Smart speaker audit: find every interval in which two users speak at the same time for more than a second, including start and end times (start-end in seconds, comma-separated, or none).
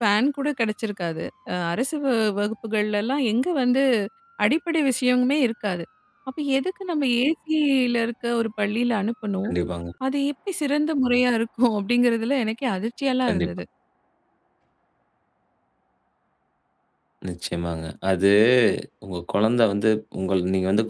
none